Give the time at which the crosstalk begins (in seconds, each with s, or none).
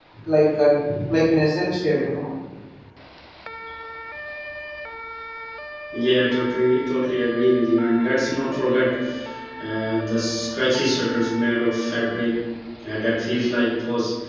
none